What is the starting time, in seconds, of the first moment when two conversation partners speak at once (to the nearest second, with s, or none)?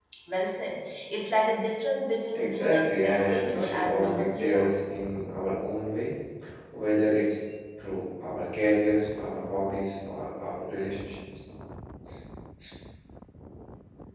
2 s